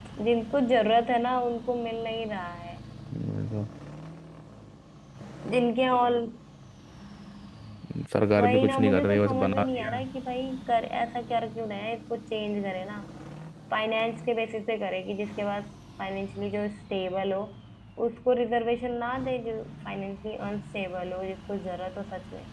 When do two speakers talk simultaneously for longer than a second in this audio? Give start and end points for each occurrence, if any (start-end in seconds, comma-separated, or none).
8.4-9.9